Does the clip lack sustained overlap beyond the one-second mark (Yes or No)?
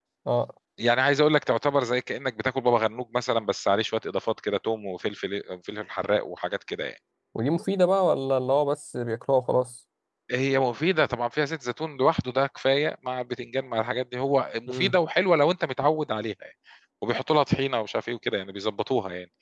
Yes